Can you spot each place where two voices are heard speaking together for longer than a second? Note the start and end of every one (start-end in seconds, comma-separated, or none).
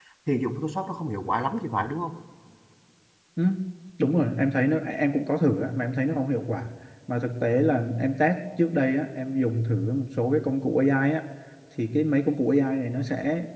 none